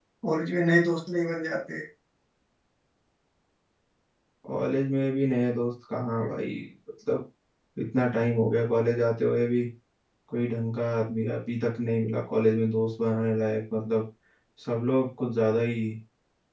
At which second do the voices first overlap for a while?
none

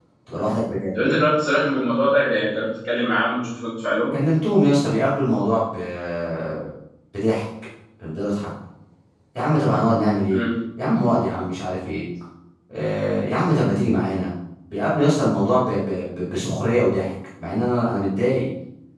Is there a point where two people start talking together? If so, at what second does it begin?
none

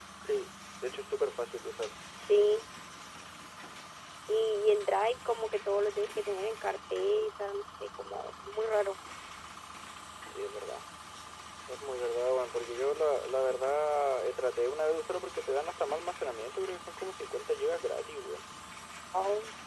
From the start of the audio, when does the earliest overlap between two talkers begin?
none

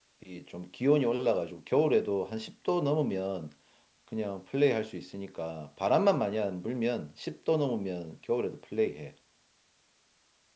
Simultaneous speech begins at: none

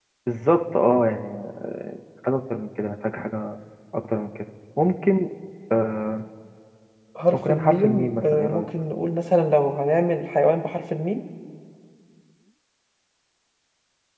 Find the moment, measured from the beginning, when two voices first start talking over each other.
7 s

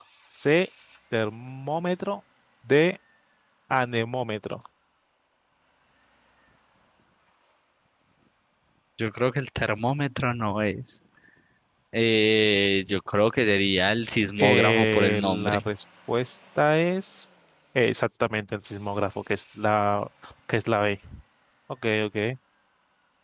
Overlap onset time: 14 s

